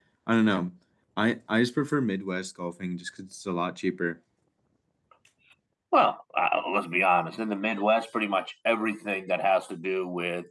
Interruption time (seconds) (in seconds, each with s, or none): none